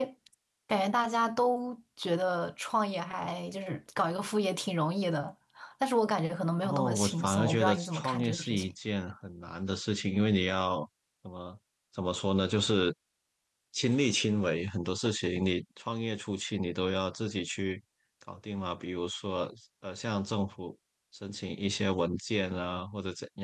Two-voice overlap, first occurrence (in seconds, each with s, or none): 6.6 s